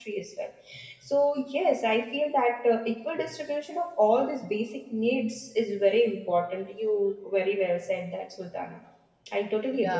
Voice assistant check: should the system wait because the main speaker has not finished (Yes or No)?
No